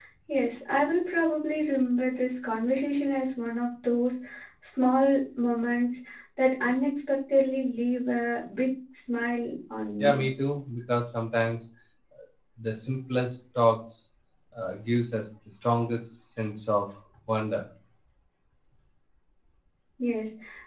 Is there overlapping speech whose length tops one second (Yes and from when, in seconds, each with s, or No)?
No